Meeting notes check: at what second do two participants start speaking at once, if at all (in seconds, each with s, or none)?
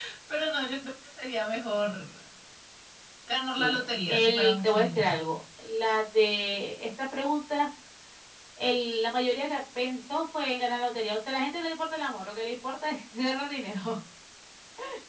3.6 s